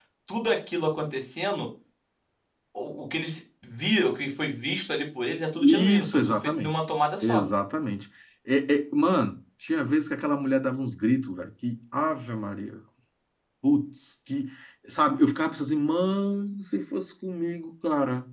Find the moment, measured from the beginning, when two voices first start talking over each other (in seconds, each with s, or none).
5.6 s